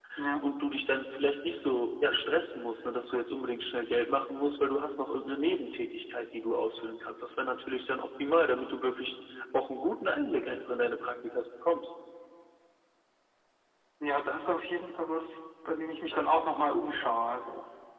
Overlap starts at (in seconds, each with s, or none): none